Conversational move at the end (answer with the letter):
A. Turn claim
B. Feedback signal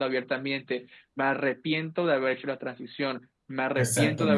B